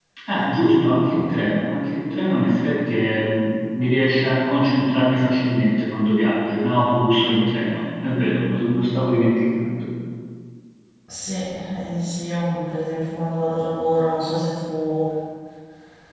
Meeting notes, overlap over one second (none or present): none